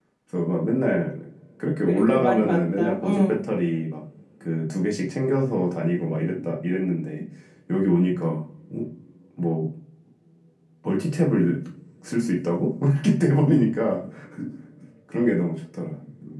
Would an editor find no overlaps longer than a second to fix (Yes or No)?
No